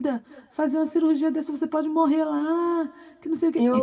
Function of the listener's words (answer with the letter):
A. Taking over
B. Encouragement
B